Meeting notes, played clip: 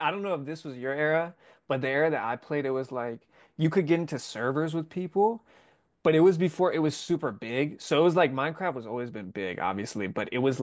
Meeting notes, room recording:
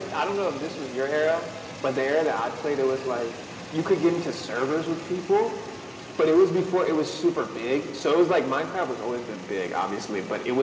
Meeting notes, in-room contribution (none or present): none